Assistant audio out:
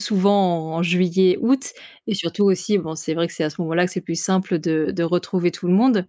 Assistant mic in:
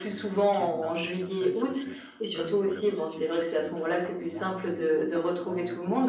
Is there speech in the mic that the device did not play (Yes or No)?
Yes